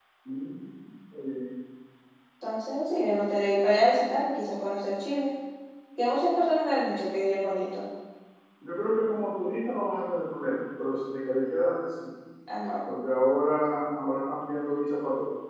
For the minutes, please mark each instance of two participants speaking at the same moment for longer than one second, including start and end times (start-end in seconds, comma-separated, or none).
none